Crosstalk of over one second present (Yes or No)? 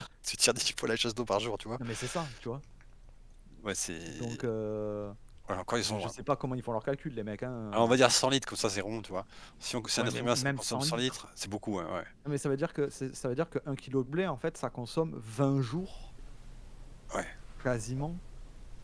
Yes